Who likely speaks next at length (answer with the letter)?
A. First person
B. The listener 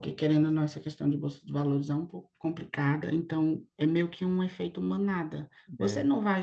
A